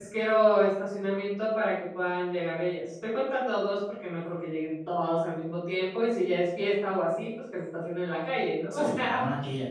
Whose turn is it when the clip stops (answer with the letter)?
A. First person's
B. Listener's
B